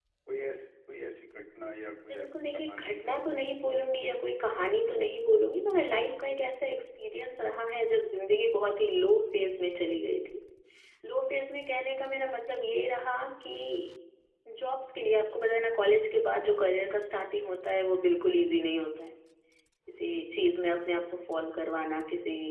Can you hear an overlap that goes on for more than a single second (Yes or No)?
Yes